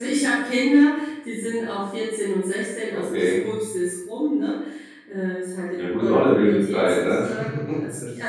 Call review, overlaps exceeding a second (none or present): present